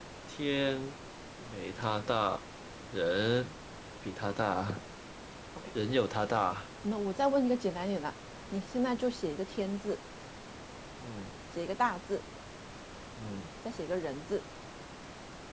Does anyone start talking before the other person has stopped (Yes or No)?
No